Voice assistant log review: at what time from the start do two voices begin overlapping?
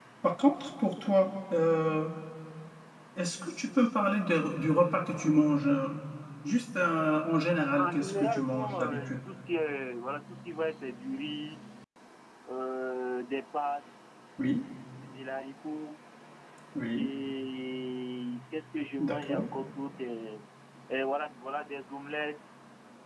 7.8 s

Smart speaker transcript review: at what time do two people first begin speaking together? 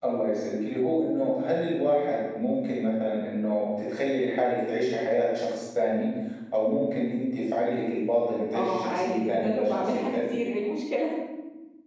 8.5 s

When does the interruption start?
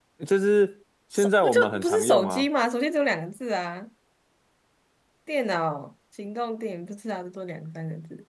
1.1 s

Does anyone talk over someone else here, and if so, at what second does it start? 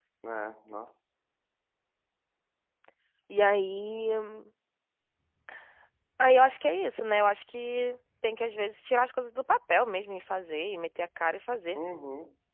none

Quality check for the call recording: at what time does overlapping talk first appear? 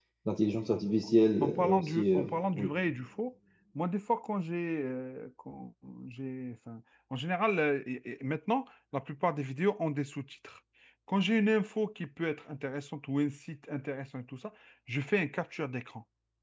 1.4 s

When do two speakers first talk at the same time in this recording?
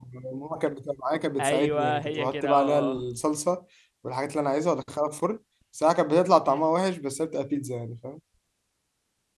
1.4 s

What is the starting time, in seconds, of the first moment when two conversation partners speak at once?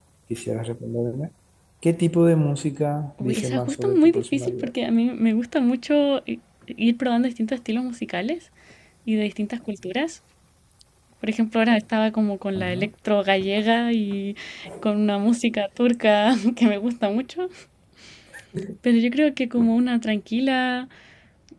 3.2 s

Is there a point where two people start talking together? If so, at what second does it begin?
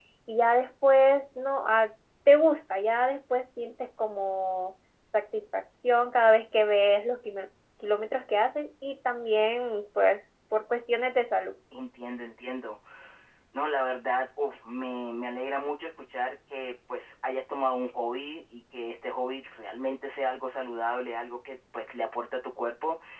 none

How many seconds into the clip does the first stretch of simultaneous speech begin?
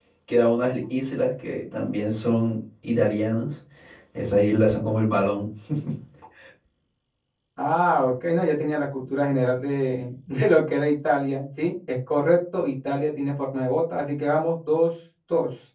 none

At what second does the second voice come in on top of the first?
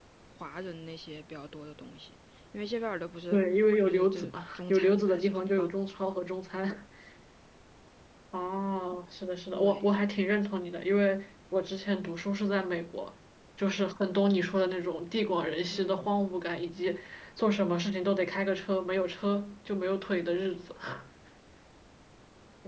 3.8 s

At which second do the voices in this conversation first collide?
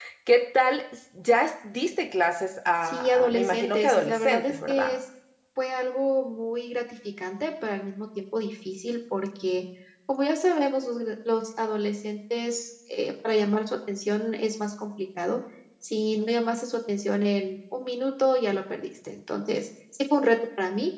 2.8 s

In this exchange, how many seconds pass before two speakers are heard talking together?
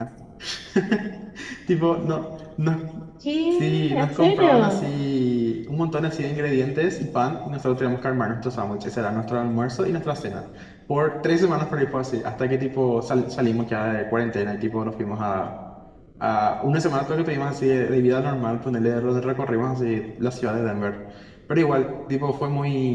3.6 s

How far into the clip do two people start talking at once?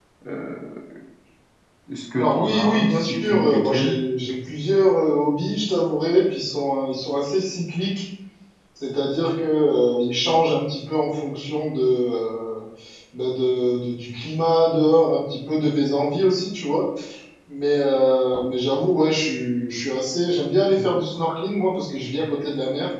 2.1 s

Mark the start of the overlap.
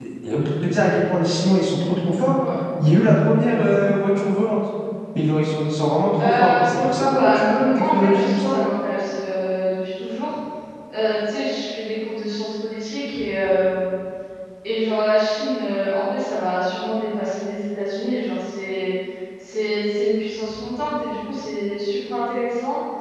6.2 s

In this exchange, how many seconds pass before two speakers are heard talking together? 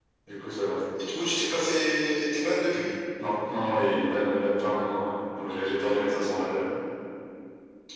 none

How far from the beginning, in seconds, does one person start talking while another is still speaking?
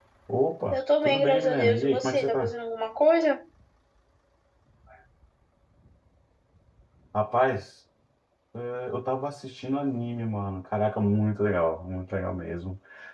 0.7 s

